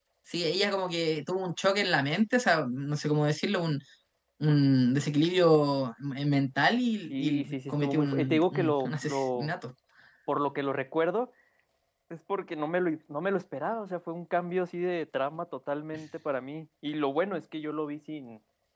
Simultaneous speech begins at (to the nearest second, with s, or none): 7 s